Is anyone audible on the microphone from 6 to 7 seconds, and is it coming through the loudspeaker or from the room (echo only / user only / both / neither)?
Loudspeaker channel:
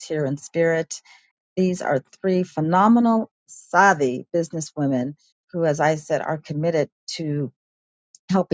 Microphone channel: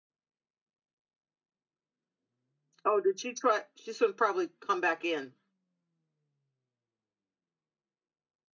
neither